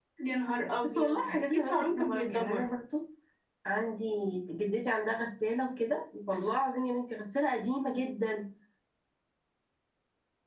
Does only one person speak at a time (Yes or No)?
No